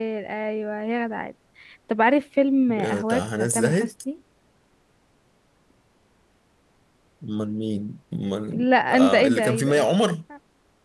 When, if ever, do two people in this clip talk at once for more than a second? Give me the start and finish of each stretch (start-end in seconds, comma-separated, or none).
2.7-3.9, 8.5-9.9